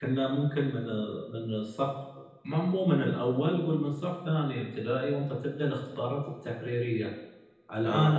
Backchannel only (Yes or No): Yes